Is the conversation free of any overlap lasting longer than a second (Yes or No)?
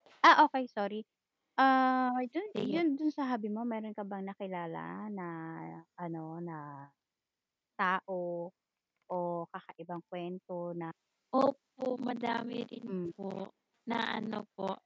Yes